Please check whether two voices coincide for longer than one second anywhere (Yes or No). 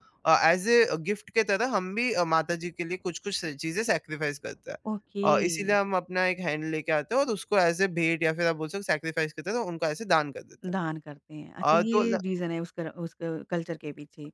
No